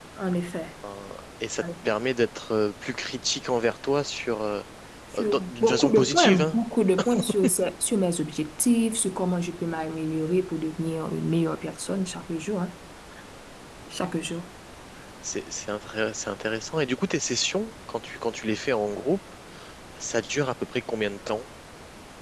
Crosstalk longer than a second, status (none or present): present